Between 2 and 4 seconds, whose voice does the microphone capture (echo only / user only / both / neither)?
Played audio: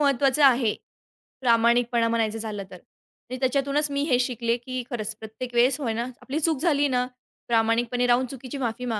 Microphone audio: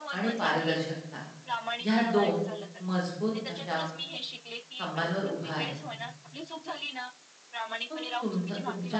both